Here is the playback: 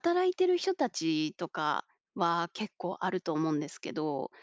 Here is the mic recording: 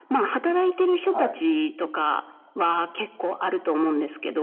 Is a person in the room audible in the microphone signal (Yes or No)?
Yes